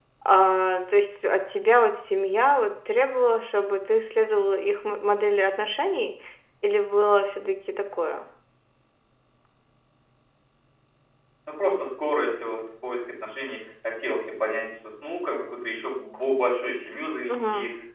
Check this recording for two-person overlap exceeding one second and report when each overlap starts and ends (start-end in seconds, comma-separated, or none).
none